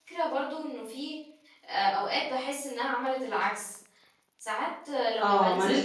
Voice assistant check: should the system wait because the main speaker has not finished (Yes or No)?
No